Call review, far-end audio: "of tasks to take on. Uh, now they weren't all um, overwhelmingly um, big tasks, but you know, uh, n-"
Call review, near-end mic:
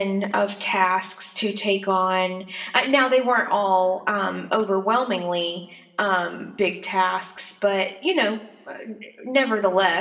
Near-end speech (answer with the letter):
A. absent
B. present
A